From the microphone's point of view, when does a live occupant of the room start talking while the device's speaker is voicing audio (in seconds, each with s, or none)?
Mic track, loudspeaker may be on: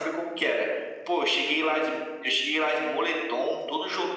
none